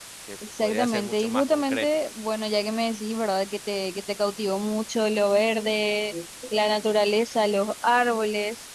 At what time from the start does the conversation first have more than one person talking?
1 s

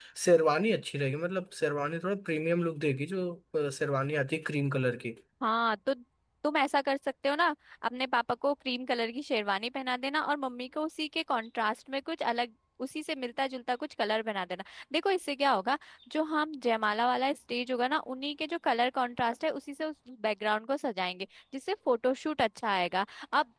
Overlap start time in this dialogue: none

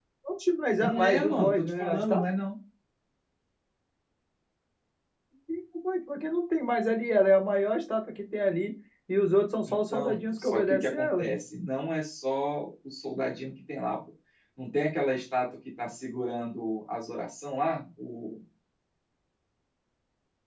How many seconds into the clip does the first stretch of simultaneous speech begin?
1 s

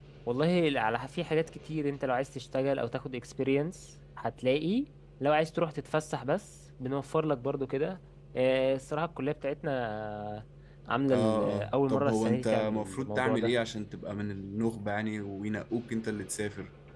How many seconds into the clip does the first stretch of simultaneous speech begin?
11 s

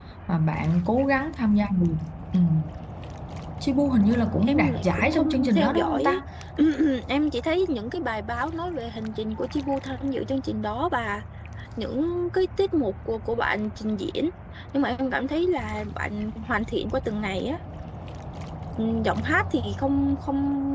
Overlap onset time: 4 s

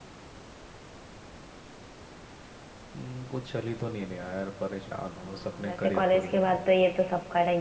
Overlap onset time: 5 s

